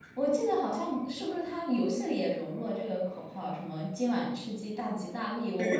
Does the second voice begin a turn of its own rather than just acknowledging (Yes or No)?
Yes